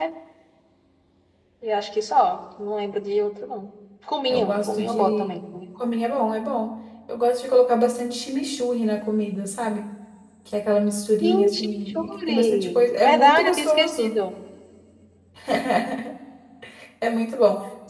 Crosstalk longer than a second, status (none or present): present